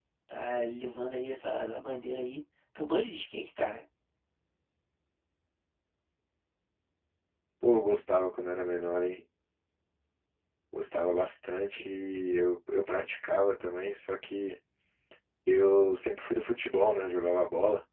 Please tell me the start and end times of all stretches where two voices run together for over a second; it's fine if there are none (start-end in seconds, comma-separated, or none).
none